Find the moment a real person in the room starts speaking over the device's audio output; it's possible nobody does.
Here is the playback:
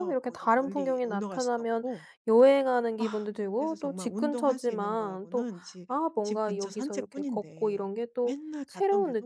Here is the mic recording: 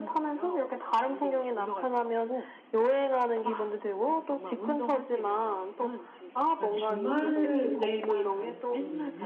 6.4 s

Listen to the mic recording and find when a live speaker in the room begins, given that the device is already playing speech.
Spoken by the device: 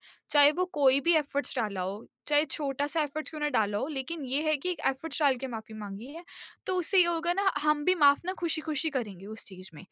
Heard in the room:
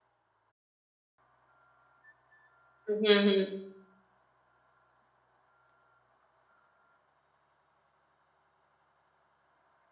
2.9 s

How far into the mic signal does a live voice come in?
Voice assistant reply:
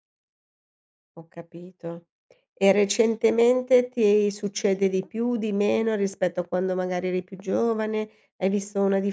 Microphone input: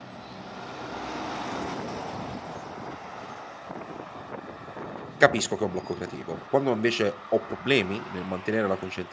5.2 s

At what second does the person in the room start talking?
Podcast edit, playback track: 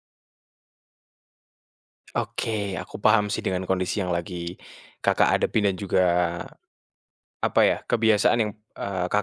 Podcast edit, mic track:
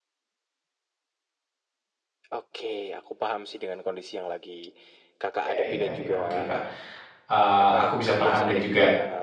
5.4 s

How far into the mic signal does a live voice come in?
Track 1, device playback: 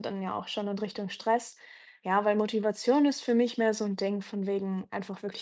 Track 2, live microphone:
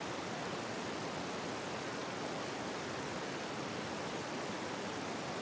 none

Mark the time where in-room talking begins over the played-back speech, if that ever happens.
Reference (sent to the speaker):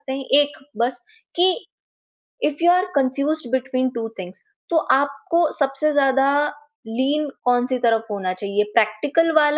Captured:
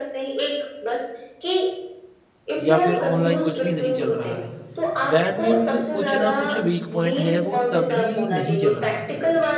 2.6 s

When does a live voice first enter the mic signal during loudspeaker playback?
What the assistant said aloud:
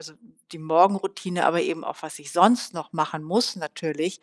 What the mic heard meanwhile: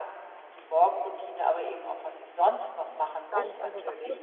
3.3 s

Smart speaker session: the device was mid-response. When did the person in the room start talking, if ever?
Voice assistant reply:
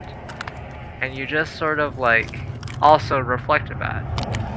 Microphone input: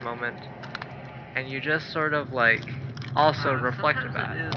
3.3 s

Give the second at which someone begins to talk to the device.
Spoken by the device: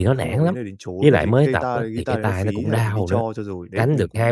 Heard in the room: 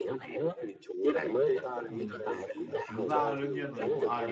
1.9 s

